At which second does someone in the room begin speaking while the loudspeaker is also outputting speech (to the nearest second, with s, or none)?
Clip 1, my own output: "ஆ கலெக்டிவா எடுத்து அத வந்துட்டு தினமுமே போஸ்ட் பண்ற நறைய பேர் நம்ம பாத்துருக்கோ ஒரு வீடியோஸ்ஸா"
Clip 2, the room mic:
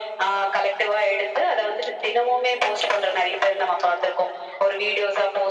none